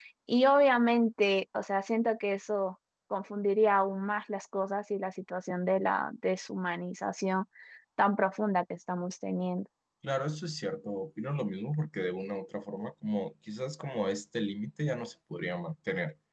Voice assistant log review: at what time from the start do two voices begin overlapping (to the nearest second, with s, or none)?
none